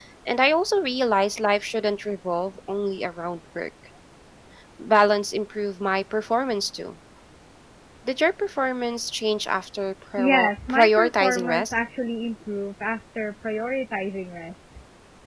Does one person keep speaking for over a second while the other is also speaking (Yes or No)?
Yes